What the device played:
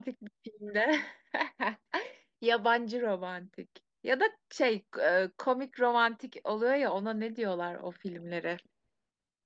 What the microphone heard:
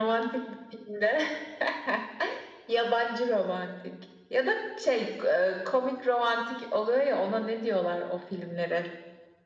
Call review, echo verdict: present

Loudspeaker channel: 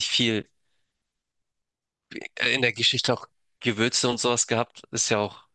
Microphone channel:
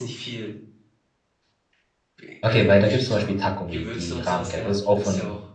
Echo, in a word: present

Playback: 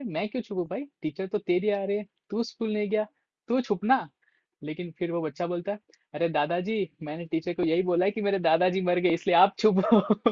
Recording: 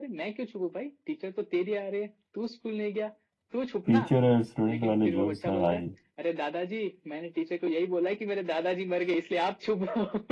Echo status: present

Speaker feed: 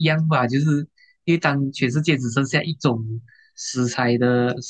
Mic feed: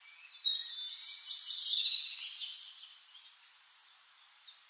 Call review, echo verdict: none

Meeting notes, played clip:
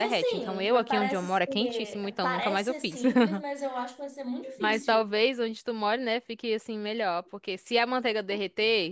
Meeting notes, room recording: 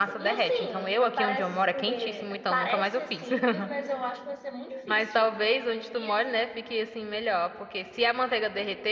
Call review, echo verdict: present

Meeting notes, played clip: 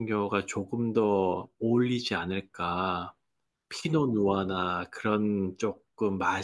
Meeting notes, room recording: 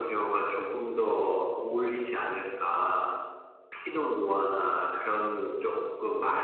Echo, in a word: present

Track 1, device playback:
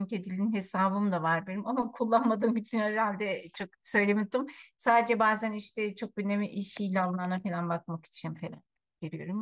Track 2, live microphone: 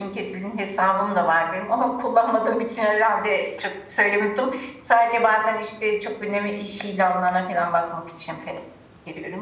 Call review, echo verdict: present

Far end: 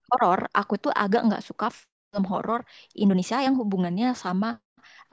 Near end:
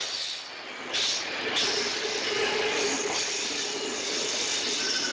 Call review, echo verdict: none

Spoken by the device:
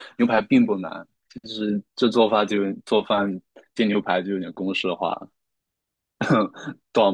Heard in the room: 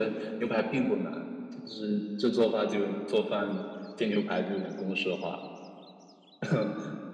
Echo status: present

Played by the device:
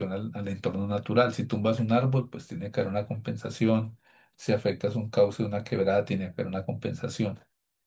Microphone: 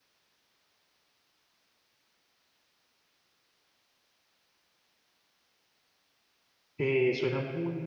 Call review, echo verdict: none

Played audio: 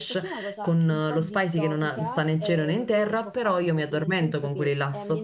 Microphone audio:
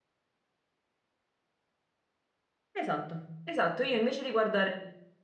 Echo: none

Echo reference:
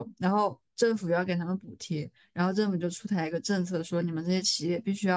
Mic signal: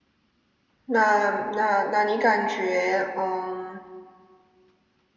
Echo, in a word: none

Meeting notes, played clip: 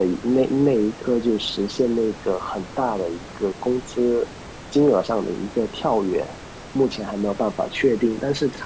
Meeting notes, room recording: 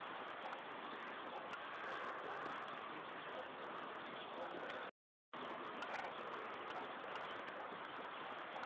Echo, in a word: none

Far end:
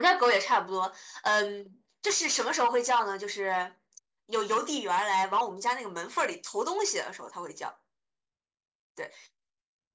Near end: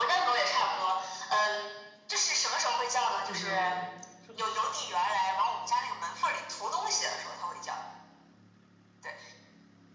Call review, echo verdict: present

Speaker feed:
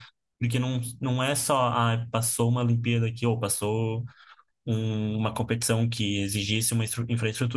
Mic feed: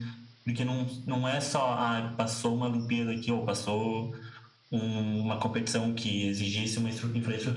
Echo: present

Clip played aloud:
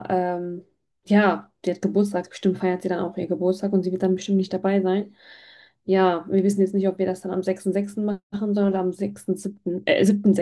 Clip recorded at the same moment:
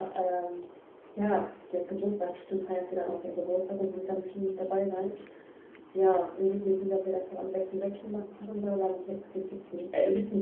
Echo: present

